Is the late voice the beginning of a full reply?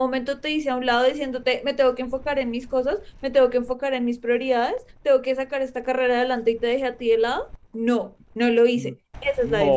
Yes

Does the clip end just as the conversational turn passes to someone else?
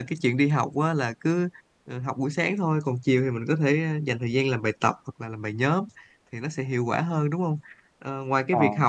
No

